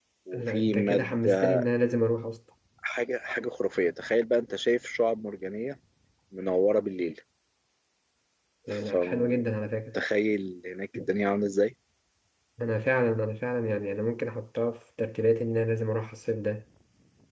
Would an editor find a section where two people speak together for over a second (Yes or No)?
Yes